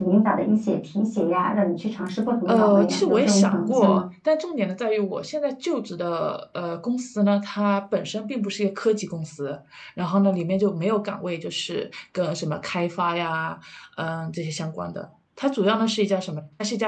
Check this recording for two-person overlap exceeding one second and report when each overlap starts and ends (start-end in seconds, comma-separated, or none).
2.5-4.0